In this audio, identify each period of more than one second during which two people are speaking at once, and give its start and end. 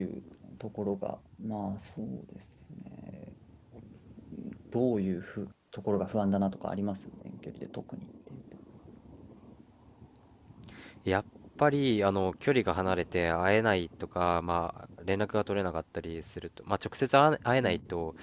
none

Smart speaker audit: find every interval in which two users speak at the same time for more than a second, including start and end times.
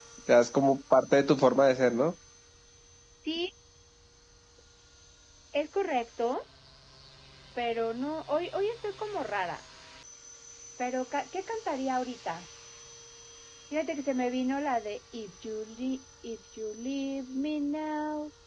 none

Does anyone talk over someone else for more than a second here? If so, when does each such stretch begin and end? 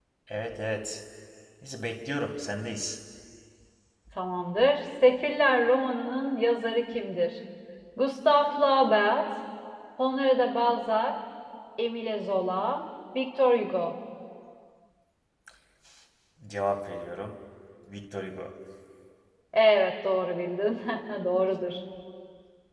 none

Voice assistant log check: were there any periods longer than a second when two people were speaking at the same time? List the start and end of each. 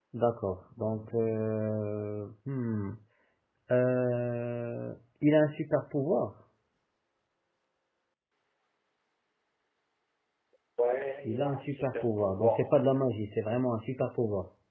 11.2-12.8

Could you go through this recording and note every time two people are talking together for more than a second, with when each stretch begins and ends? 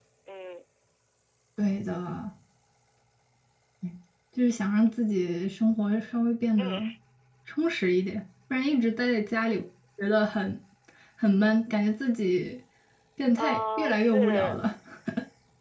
13.4-14.6

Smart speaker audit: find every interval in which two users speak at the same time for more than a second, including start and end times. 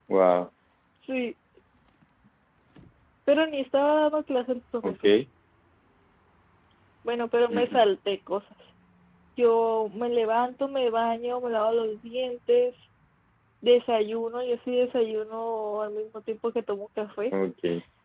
none

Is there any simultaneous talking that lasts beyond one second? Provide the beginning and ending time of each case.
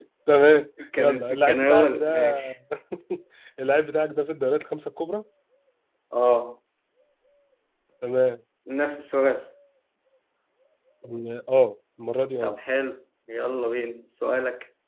1.0-2.4

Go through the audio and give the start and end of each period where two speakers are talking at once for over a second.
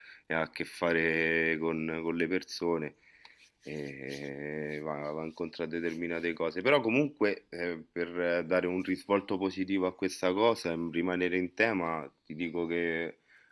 none

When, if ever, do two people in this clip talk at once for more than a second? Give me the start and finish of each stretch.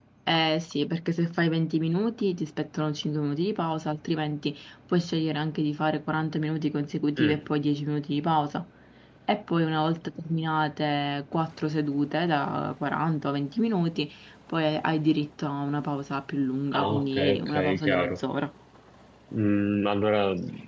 16.7-18.2

